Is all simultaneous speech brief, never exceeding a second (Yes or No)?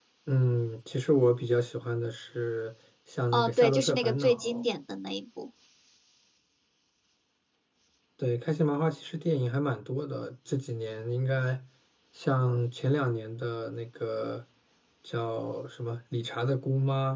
No